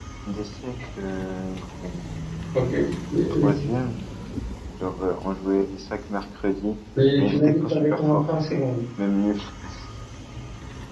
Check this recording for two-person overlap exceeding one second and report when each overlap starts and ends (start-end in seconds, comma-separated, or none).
7.2-8.7